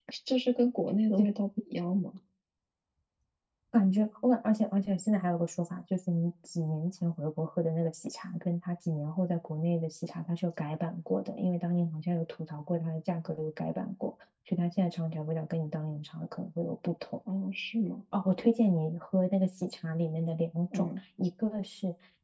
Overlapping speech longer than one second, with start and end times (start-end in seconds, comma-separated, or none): none